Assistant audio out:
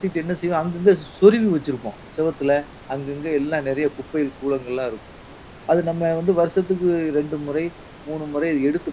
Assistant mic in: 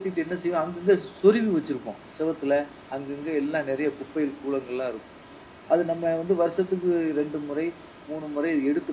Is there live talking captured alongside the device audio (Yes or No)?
No